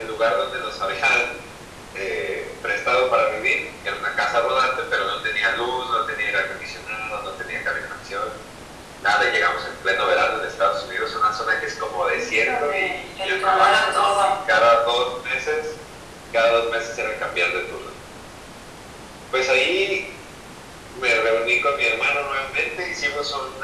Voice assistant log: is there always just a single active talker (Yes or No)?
No